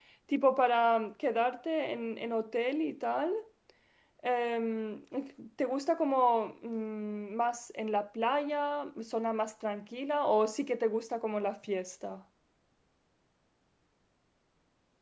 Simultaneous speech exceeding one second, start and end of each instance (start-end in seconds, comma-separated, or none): none